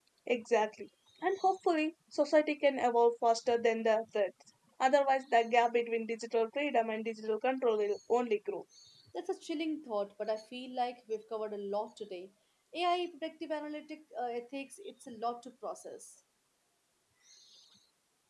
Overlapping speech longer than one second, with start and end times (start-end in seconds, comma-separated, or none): none